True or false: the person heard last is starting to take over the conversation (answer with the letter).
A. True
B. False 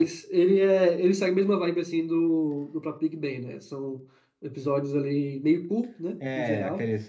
A